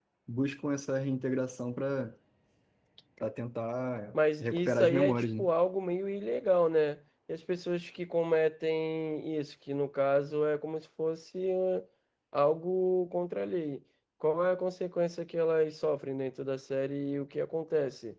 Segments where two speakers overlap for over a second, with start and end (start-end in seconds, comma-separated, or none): 4.1-5.5